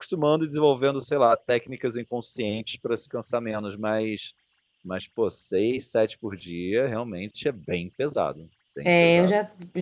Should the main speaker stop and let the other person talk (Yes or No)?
Yes